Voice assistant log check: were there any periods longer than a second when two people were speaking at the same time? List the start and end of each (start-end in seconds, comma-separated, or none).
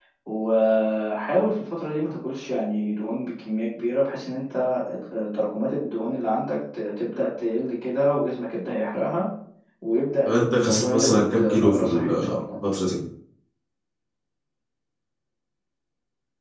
10.2-12.3